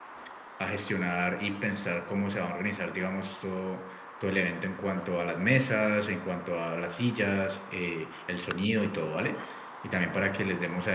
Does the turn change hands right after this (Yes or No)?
No